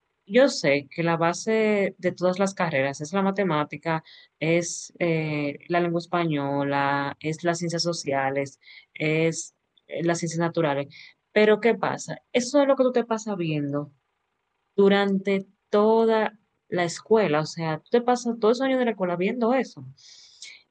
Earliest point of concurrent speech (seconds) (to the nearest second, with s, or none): none